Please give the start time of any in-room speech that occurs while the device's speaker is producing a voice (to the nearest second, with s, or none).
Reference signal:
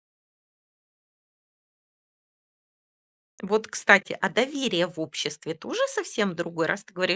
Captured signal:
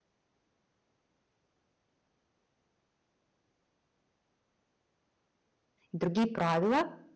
6 s